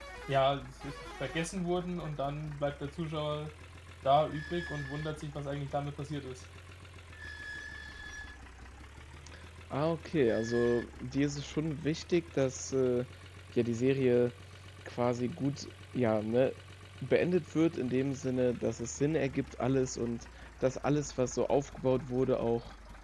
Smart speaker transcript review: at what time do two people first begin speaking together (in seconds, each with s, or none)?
none